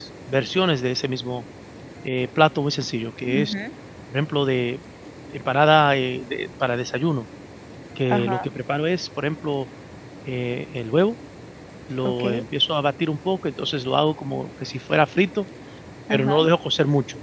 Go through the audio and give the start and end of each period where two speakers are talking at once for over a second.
none

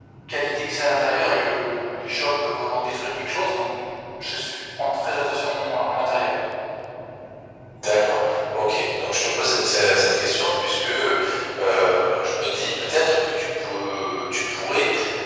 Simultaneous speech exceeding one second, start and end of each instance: none

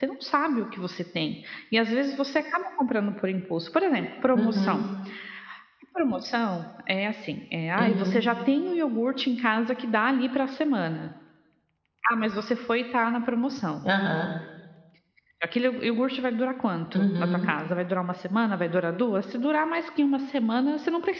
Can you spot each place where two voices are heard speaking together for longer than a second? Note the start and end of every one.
none

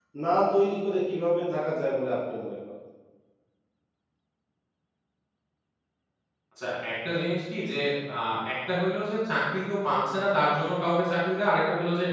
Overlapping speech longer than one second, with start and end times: none

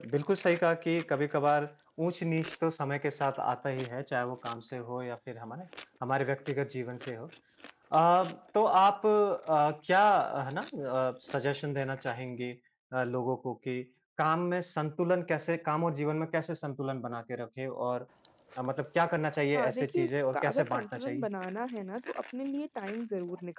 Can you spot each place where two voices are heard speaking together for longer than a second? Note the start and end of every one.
19.5-21.3

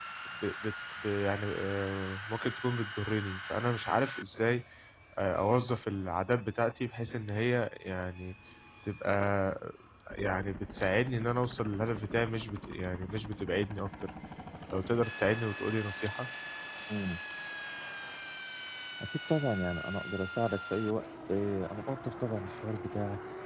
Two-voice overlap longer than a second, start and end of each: none

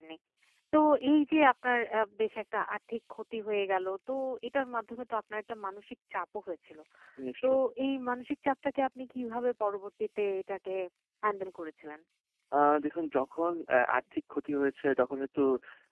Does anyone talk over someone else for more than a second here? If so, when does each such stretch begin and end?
none

